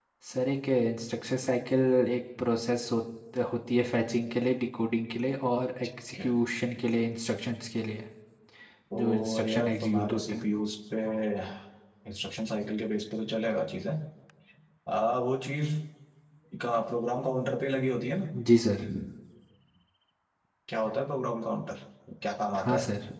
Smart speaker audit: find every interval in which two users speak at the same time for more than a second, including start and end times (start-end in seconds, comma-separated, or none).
8.9-10.4